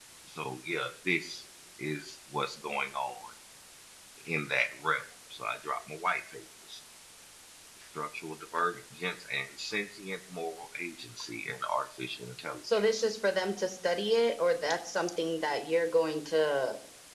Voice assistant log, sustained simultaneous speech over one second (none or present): none